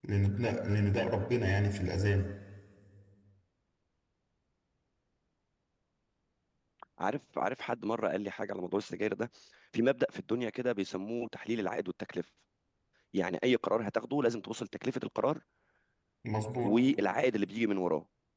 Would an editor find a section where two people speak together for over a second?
No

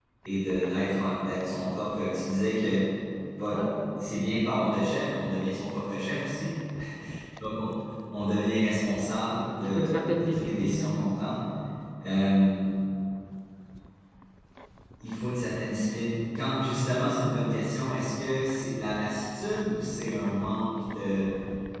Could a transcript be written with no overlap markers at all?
No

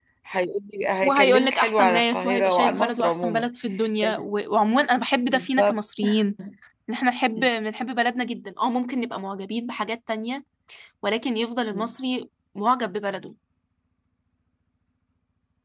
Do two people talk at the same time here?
Yes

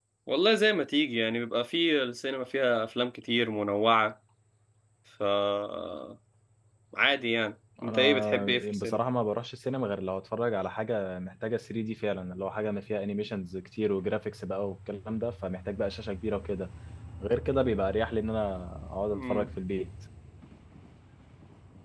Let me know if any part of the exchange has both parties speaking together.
Yes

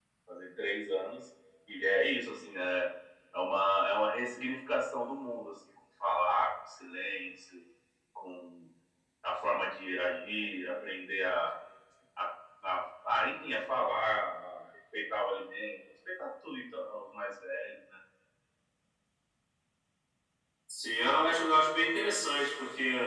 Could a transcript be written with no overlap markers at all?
Yes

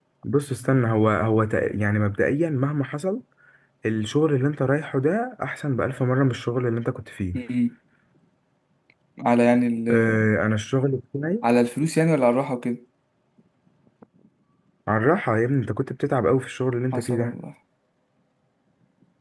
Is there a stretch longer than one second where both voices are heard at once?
No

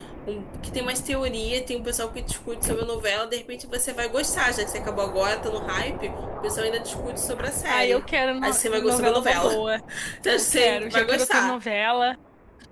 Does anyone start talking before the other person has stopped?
Yes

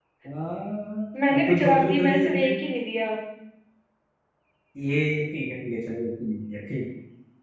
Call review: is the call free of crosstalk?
No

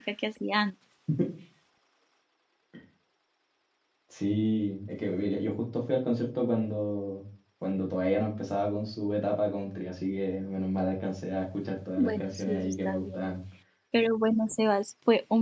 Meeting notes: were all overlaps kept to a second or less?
No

